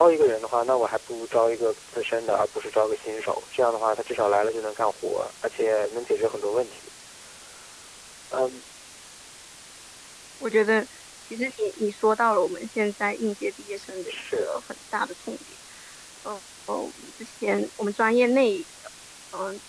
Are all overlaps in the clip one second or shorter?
Yes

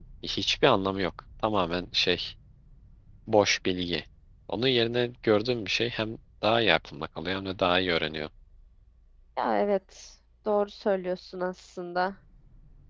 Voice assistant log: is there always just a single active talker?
Yes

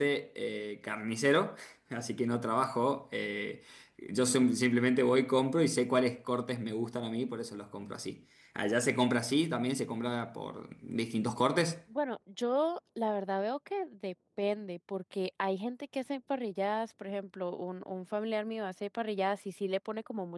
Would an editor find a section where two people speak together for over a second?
No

